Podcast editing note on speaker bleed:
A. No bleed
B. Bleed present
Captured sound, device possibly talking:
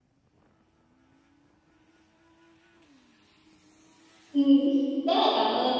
A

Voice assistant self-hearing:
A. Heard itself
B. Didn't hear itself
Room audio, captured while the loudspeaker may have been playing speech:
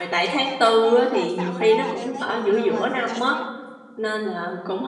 A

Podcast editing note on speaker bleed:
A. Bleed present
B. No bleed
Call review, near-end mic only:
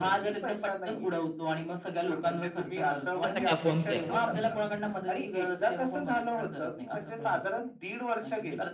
A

